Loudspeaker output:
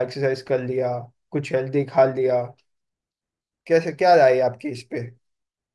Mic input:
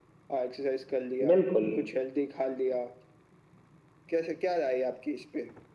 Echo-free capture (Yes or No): No